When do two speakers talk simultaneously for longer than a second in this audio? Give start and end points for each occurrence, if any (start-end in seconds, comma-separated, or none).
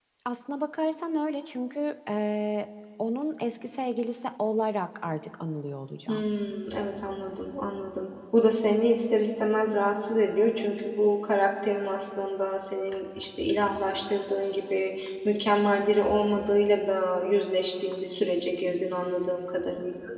none